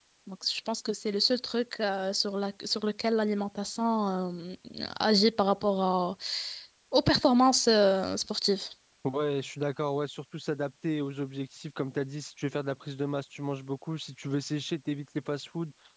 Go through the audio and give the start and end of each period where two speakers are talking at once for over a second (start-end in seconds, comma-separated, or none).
none